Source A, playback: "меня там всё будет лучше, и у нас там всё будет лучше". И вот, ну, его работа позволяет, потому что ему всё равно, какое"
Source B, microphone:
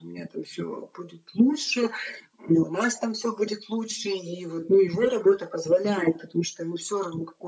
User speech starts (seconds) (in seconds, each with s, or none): none